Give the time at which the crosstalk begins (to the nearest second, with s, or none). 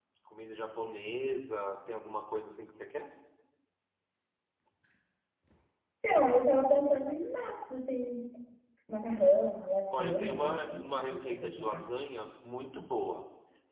10 s